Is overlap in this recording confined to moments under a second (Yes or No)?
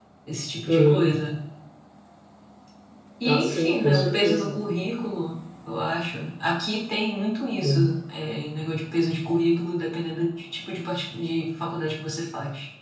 No